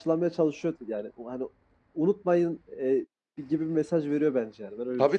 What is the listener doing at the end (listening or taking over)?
taking over